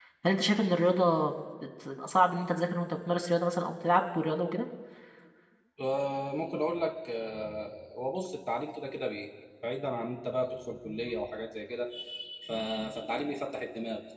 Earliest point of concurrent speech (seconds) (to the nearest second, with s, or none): none